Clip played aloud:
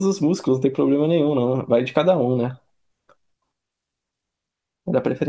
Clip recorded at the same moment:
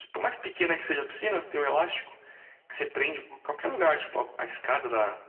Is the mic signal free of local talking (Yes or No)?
No